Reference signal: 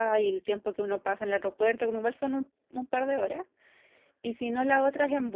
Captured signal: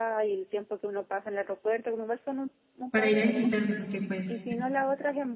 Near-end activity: present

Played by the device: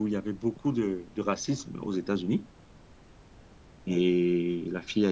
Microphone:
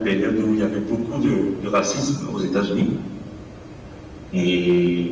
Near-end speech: none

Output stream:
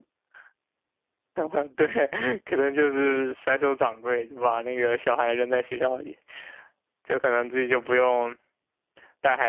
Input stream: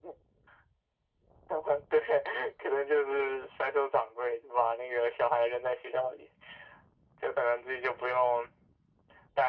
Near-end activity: none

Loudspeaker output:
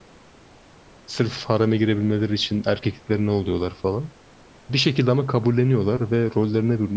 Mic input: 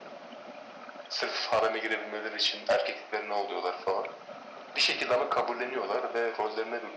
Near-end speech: none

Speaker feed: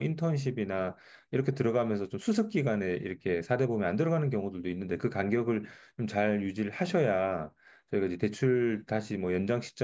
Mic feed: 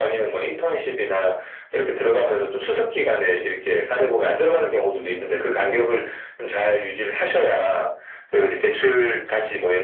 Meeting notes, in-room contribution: none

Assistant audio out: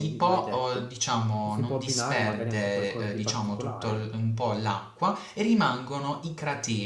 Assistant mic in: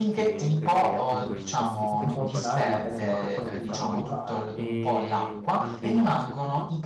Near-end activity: present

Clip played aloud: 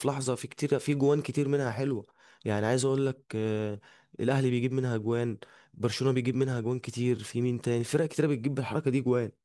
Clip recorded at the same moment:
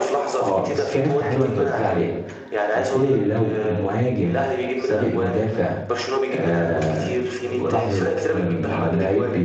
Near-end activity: present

